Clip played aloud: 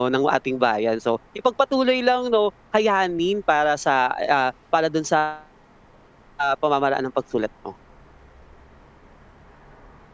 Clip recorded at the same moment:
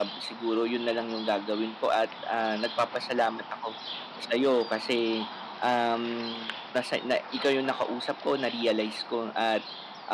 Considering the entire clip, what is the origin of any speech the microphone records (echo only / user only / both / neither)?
user only